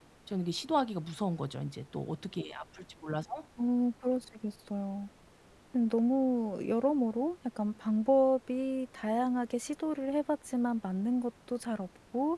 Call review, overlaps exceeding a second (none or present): none